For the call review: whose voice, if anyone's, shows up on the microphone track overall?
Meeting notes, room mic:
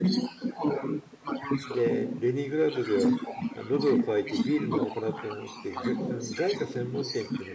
both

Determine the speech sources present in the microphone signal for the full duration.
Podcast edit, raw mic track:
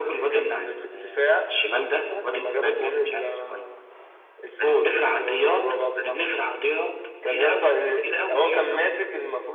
echo only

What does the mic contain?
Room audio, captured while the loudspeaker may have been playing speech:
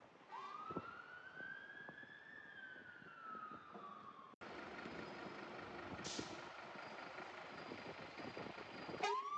neither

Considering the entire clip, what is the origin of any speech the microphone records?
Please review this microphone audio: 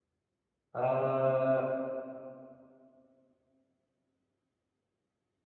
user only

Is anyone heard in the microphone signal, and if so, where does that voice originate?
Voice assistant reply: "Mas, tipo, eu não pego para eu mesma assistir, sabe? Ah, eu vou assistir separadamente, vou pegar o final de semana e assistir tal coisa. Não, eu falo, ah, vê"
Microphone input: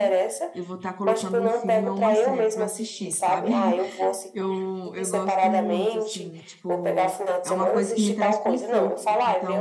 both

